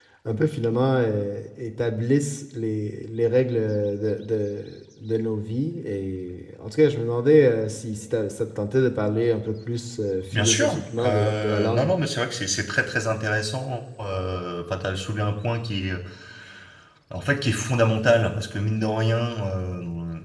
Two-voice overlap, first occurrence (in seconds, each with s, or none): 10.3 s